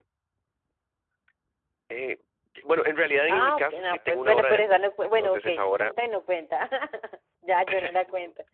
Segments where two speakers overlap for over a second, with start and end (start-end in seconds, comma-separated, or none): 3.3-5.9